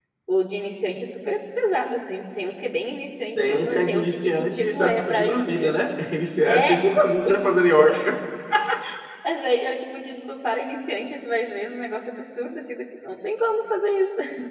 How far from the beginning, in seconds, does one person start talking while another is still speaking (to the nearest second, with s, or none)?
3 s